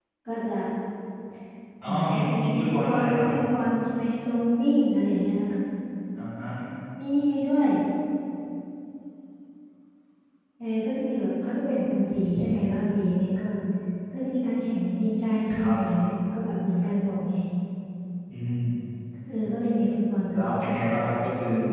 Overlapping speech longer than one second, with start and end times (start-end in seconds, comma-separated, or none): 1.9-3.3